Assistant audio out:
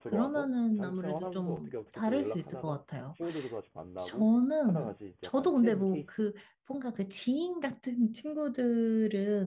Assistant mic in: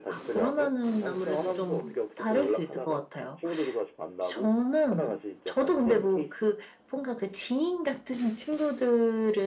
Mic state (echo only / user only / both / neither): echo only